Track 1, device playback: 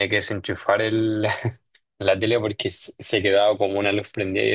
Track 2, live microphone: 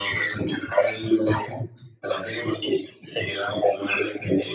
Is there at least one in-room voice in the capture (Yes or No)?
No